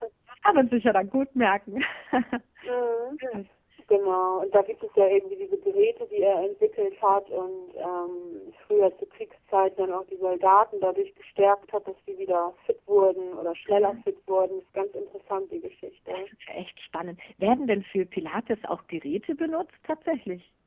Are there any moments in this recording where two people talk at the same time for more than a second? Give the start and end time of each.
none

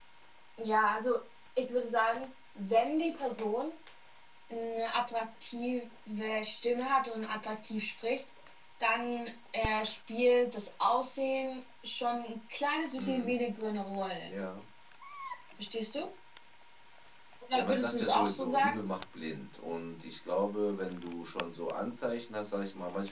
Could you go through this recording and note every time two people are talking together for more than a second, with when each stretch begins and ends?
17.5-18.8

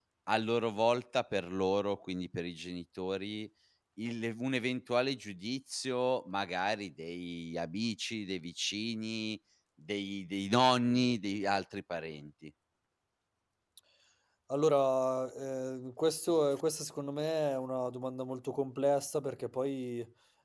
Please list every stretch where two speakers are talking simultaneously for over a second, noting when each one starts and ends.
none

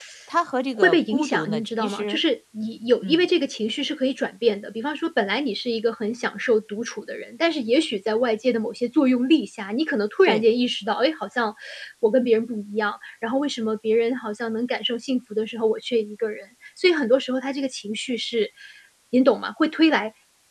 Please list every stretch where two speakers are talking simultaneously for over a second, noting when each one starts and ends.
0.8-2.2

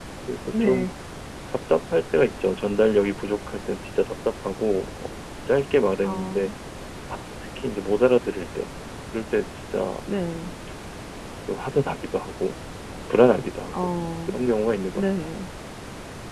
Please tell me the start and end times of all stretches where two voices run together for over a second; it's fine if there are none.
none

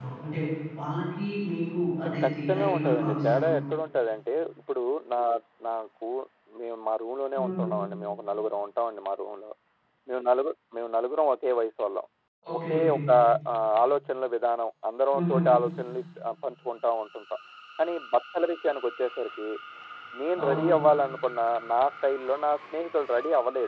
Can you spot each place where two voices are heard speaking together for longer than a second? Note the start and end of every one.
2.0-3.5

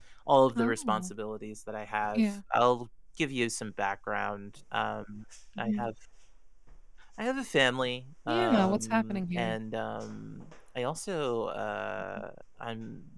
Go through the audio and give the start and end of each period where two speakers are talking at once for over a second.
8.3-9.6

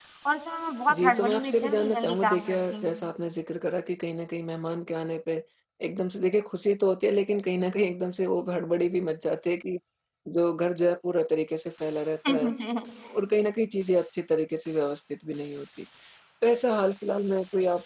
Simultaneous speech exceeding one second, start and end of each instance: 0.9-3.0

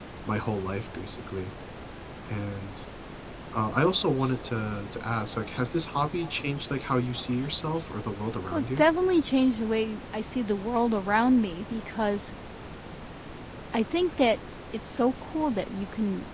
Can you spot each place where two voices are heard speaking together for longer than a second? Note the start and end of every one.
none

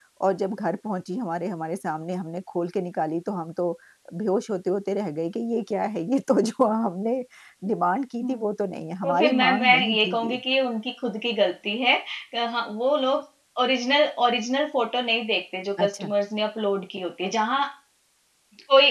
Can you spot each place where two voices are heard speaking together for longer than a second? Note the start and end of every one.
9.0-10.4

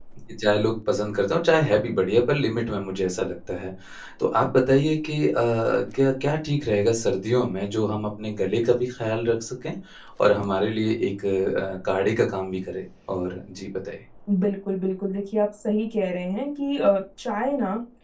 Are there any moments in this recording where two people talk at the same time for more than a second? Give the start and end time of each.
none

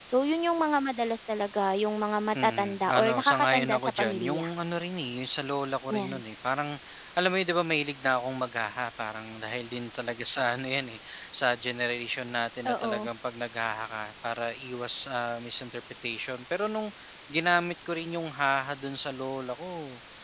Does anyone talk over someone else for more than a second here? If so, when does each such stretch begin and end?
2.4-4.5

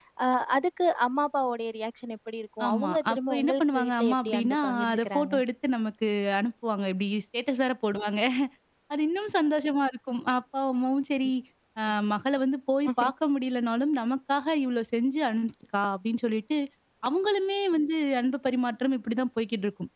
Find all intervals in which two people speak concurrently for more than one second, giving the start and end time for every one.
2.7-5.3

